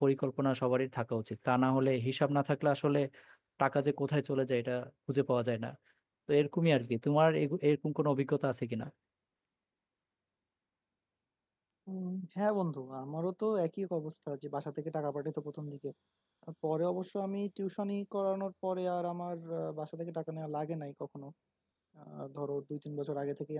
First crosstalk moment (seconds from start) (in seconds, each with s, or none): none